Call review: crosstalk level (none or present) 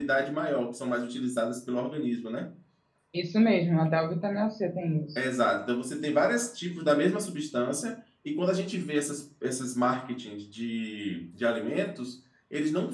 none